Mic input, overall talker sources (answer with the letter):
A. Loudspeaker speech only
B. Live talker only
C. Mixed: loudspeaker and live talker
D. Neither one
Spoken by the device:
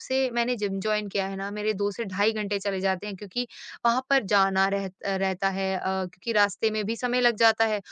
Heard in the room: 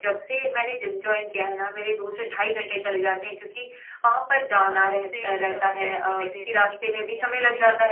C